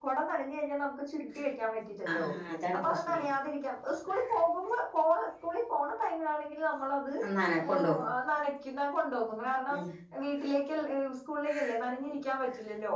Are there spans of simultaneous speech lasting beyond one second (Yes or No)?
No